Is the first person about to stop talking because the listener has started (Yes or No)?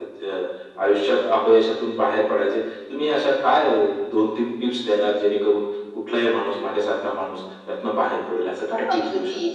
Yes